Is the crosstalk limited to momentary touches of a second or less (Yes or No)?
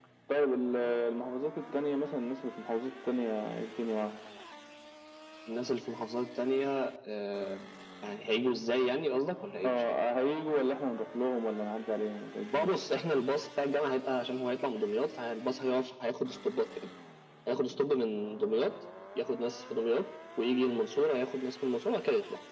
Yes